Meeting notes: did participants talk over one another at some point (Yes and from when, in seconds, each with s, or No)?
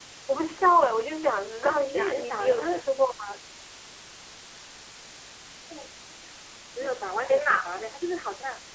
Yes, from 1.6 s